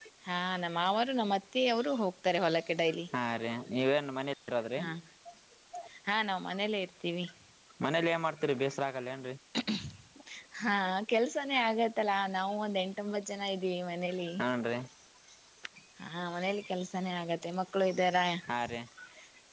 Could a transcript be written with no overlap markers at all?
Yes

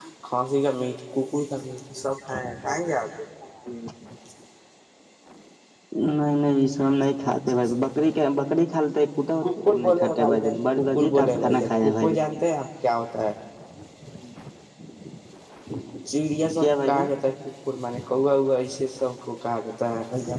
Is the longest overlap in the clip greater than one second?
Yes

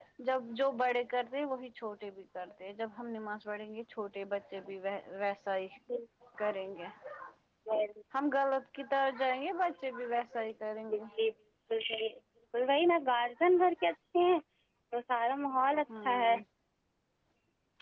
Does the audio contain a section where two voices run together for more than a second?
No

